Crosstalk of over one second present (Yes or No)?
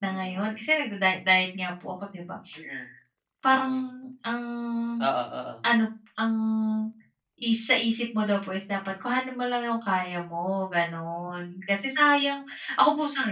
No